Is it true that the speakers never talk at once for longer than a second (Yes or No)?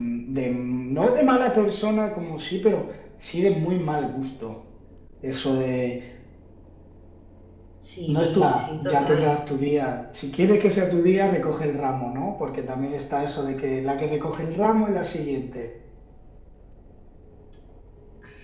No